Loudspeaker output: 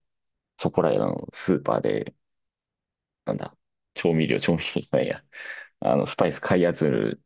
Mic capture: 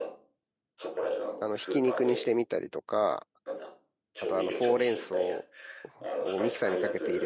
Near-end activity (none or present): present